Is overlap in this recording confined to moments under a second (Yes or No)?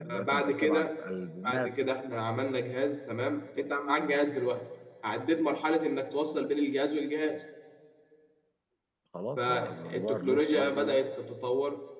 No